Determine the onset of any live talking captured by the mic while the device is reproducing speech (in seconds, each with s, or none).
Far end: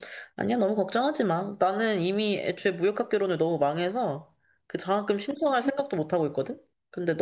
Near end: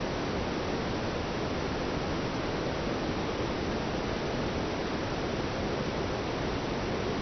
none